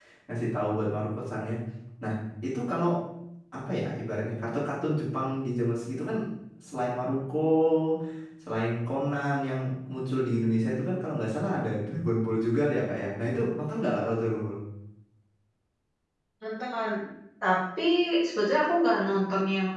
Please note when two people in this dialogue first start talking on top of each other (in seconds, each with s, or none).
none